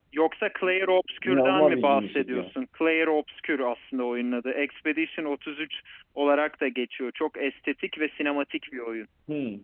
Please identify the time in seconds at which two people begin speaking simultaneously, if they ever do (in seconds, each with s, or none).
1.2 s